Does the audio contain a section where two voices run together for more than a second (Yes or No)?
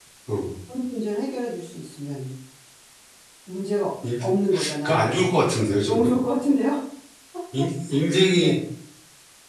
No